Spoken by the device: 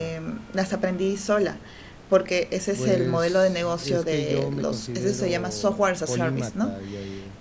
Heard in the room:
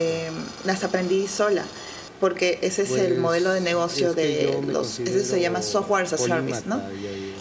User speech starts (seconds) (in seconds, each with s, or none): none